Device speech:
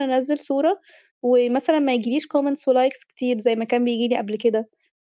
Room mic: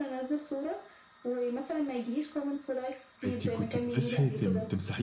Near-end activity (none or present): present